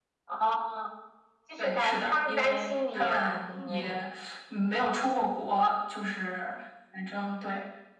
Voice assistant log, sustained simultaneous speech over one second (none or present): present